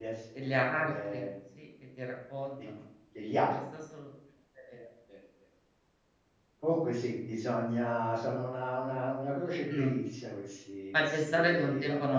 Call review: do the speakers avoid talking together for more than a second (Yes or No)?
No